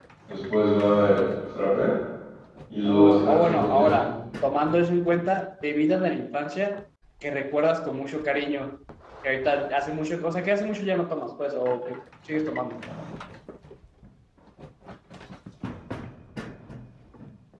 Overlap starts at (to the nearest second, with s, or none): 3 s